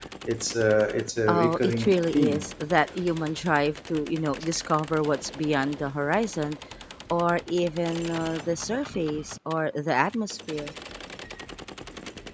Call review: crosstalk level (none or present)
present